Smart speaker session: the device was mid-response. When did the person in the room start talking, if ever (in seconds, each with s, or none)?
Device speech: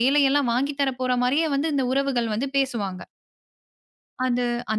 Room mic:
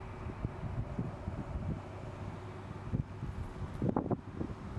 none